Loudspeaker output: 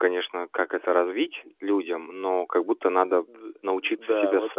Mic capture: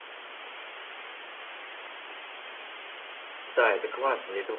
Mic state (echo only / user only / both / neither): user only